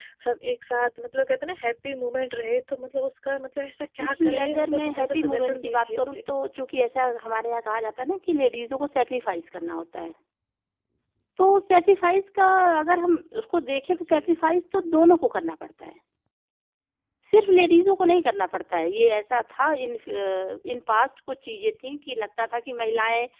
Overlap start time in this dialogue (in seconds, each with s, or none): 4.0 s